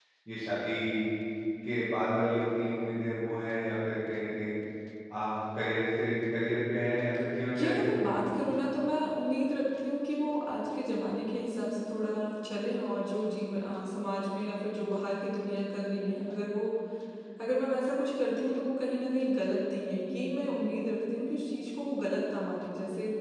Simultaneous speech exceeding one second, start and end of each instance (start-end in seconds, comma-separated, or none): none